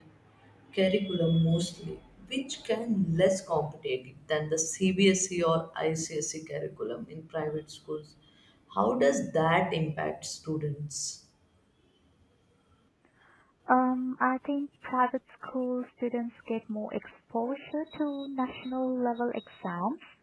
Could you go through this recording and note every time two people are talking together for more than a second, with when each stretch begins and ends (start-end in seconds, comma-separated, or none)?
none